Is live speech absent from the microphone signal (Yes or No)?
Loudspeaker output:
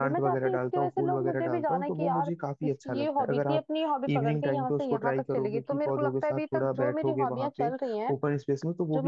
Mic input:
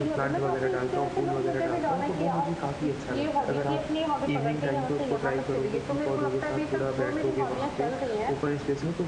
Yes